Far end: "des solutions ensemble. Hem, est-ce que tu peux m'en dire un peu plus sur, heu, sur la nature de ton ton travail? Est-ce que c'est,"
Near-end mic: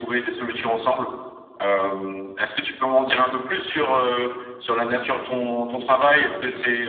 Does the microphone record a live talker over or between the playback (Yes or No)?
No